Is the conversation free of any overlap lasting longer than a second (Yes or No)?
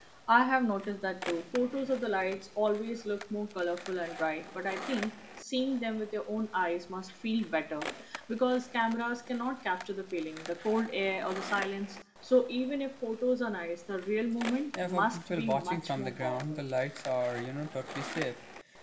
No